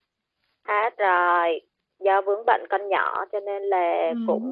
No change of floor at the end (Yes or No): Yes